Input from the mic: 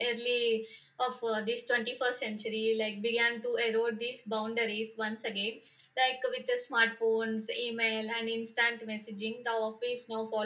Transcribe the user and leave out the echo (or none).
none